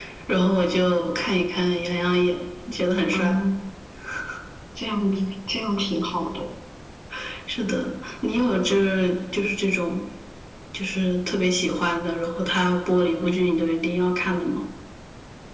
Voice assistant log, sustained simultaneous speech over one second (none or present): none